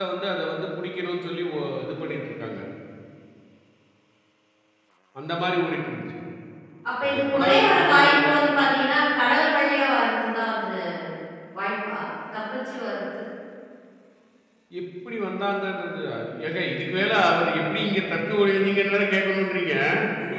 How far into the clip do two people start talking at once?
7.2 s

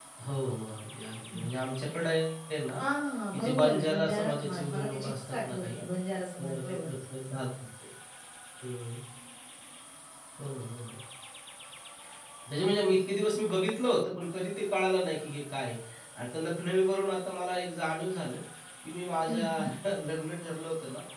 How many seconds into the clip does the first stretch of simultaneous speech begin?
3.3 s

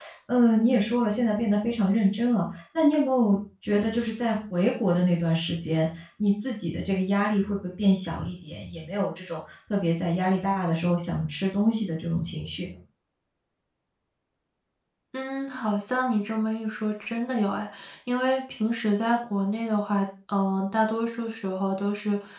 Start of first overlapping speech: none

